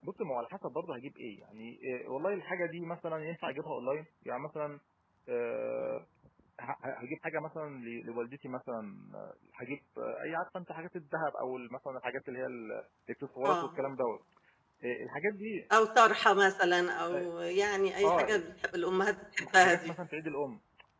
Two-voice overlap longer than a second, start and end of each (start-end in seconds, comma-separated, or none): none